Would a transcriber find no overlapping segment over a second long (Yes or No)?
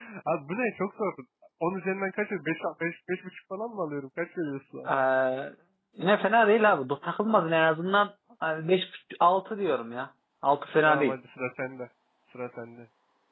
Yes